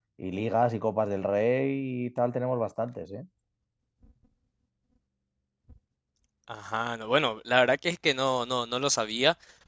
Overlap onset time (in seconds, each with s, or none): none